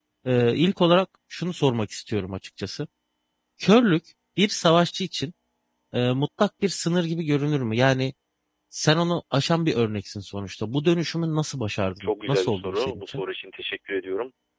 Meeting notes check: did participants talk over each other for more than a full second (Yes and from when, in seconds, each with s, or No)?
Yes, from 12.0 s